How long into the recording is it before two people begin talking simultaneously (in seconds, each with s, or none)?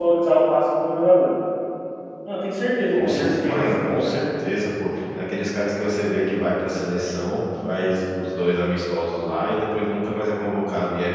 2.9 s